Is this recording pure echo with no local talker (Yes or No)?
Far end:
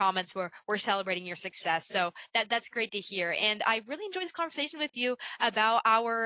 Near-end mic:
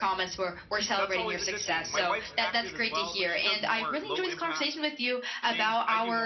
No